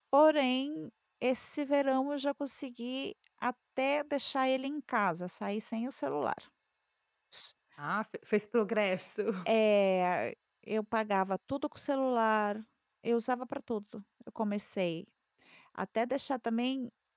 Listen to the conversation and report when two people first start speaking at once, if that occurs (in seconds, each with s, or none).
none